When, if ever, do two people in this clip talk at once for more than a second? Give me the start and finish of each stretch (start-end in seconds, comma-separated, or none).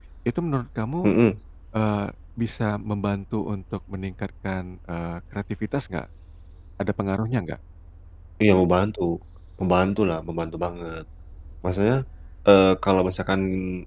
none